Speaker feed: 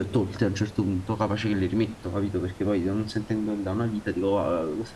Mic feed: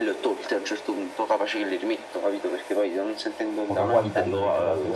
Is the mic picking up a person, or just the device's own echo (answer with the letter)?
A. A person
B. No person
A